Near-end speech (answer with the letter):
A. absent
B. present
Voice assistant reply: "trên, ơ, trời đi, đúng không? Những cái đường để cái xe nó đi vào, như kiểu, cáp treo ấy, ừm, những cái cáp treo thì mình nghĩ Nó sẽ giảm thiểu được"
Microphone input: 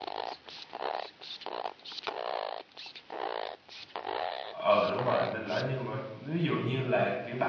B